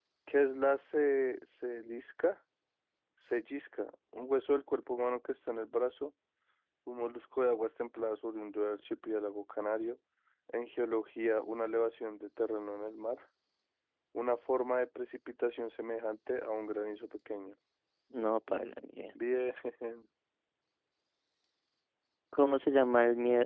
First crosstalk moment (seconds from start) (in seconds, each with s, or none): none